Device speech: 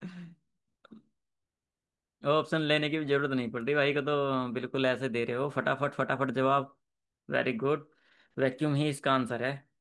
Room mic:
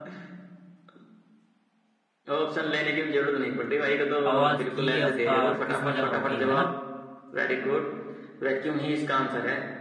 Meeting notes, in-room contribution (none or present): present